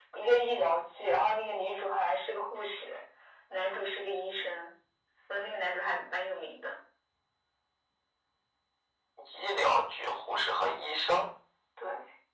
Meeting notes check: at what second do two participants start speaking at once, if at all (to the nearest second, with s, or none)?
none